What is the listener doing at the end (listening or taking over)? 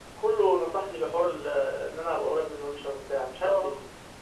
taking over